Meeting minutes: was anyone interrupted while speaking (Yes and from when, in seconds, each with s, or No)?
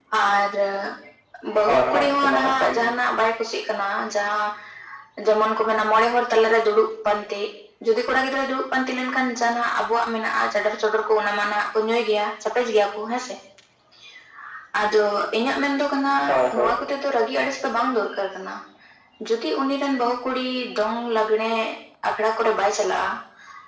Yes, from 1.7 s